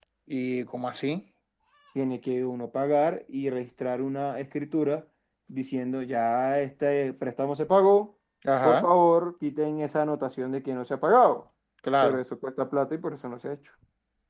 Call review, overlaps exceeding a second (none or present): none